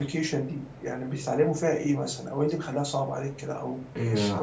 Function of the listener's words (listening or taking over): taking over